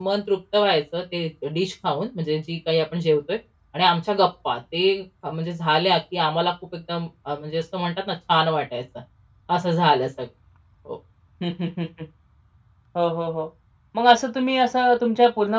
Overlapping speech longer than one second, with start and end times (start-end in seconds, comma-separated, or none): none